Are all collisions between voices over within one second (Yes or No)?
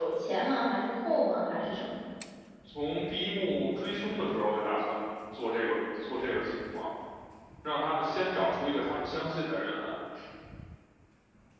Yes